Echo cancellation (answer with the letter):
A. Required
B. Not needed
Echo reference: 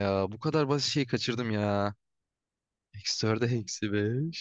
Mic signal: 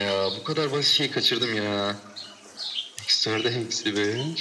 A